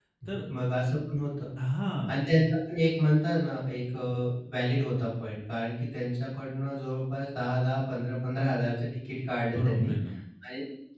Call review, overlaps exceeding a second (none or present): none